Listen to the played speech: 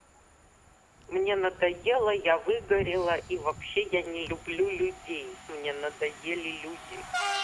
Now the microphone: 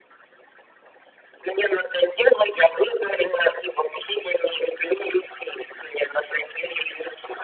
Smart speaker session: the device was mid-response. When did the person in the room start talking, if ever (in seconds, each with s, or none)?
none